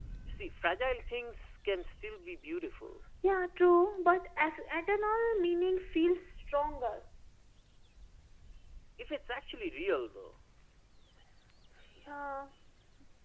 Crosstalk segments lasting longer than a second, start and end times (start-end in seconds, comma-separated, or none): none